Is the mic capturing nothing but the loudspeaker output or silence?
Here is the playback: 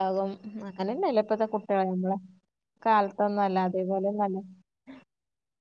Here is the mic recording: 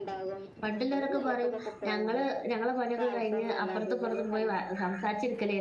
No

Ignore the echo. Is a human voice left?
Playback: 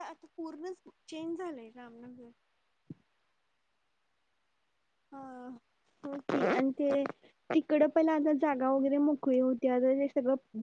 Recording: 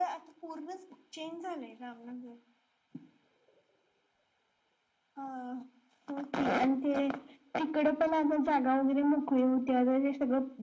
No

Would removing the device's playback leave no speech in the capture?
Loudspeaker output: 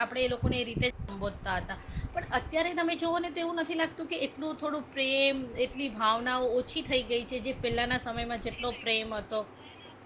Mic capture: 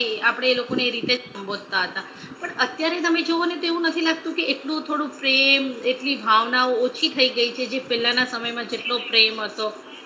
Yes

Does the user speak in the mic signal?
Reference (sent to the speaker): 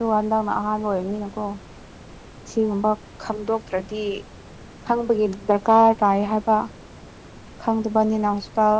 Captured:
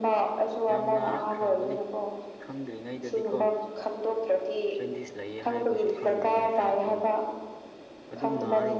Yes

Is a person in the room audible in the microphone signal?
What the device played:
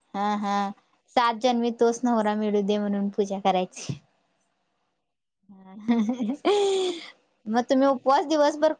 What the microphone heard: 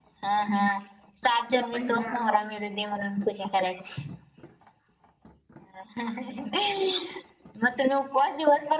Yes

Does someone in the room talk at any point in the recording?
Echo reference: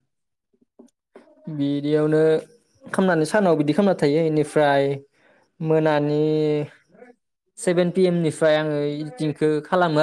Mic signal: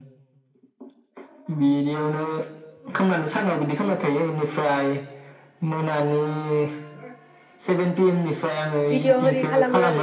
Yes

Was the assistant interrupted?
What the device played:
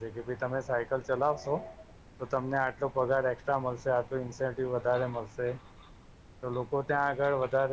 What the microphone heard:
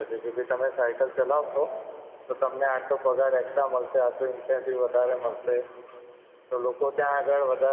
No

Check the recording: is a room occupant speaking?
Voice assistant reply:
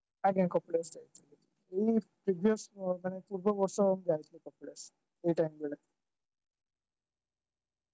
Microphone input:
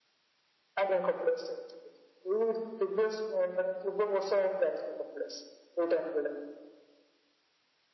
No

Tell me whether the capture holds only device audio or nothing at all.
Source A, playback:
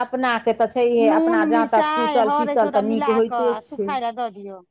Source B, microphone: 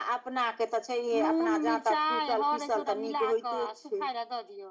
Yes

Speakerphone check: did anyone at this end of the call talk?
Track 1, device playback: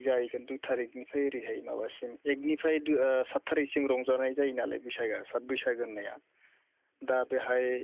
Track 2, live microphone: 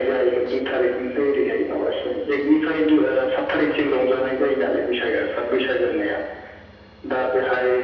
No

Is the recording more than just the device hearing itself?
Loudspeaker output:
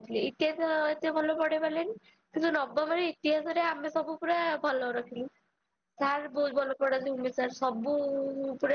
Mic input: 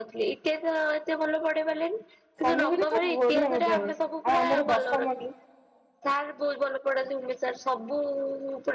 Yes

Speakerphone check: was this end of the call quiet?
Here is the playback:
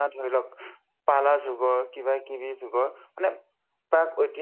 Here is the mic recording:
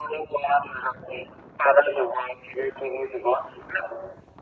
Yes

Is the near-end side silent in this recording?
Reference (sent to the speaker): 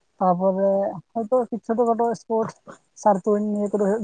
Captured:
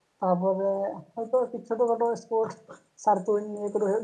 Yes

